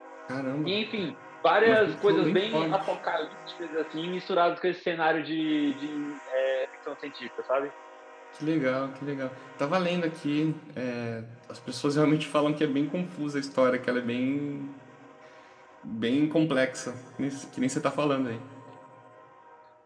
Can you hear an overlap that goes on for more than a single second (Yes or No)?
Yes